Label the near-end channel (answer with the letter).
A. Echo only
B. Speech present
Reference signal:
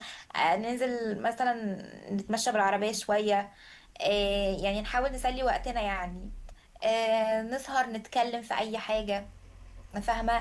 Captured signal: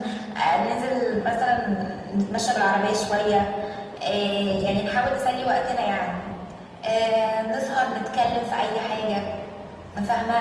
A